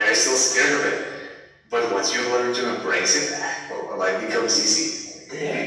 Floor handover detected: Yes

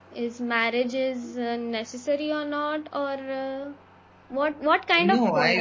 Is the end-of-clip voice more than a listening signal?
Yes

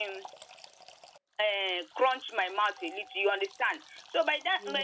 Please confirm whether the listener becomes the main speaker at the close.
No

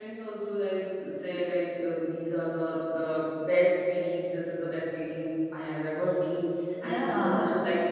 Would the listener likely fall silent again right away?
Yes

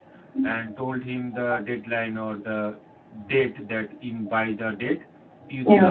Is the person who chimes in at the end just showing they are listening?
Yes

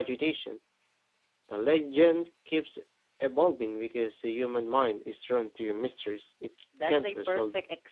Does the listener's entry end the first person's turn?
Yes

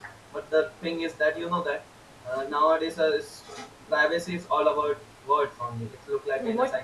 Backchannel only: No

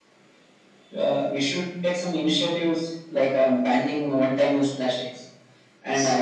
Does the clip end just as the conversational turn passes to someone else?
No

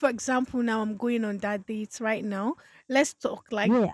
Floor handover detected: Yes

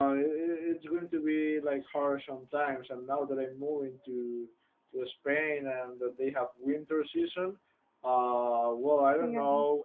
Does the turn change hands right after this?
No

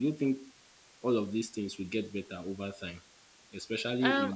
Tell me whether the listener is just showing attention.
No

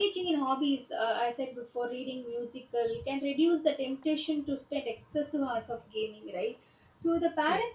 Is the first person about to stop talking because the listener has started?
No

